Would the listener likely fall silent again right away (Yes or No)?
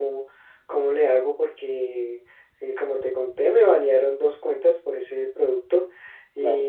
Yes